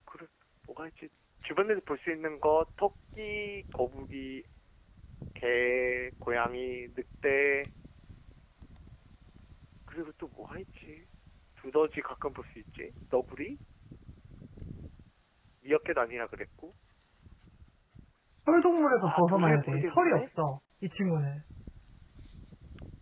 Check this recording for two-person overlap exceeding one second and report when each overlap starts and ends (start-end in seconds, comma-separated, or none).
19.0-20.3